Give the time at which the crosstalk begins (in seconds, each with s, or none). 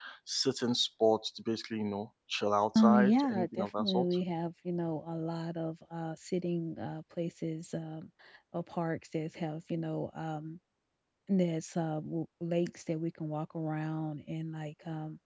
2.8 s